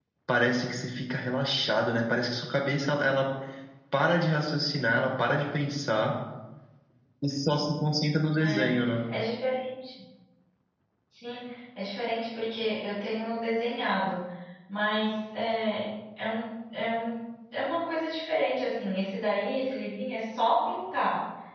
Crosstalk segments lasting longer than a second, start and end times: none

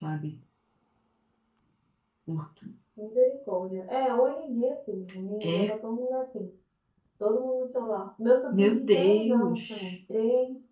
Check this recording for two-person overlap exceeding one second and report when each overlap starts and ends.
8.5-10.0

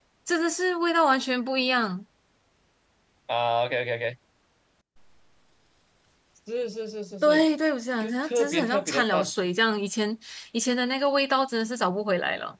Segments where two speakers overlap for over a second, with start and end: 8.0-9.3

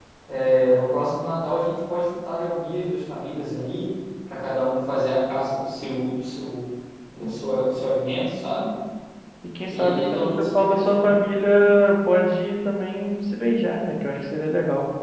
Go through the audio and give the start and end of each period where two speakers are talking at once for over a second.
9.7-11.0

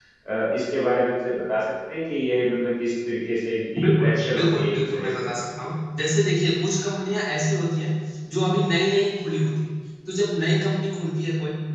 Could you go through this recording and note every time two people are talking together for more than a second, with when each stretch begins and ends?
3.8-5.3

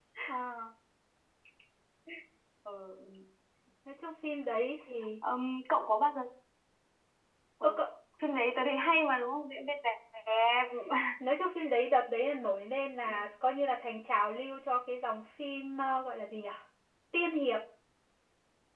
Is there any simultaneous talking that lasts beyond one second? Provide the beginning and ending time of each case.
none

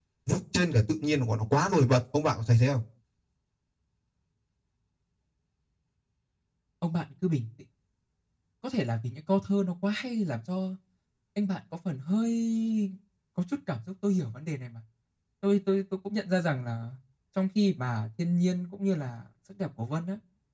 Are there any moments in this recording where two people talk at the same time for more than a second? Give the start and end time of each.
none

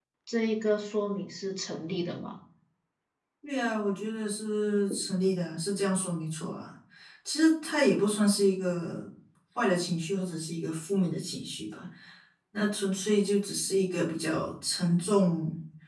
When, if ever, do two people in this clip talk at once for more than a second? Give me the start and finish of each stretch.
none

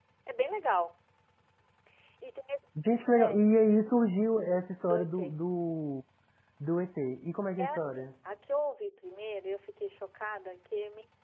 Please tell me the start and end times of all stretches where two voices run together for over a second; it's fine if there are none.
none

